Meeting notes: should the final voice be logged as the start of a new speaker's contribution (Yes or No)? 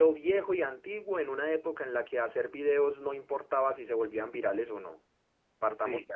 No